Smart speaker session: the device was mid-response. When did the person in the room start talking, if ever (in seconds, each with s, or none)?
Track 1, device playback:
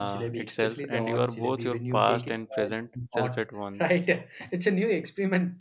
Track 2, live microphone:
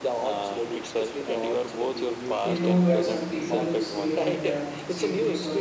2.4 s